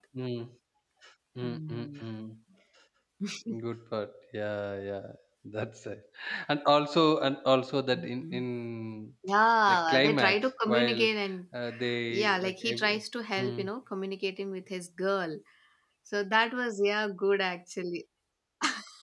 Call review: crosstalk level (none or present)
present